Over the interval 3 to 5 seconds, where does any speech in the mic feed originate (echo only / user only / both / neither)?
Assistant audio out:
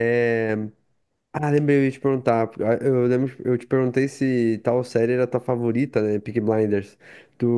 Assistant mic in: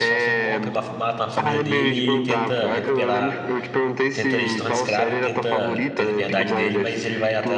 both